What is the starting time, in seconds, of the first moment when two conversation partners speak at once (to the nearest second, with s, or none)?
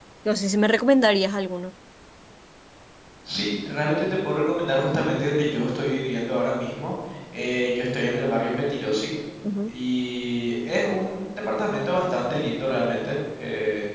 none